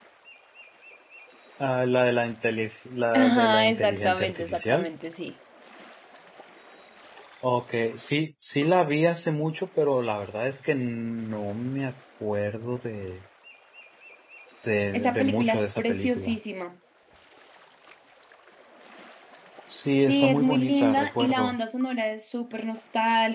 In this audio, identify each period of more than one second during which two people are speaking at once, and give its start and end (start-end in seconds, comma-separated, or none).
3.1-4.9, 14.9-16.4, 19.9-21.6